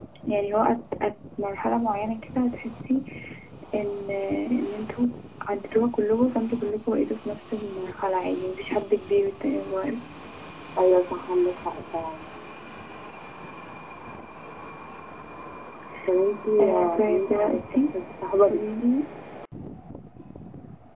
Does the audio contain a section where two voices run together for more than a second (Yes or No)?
Yes